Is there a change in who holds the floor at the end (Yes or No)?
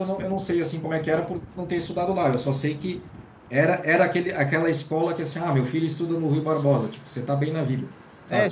Yes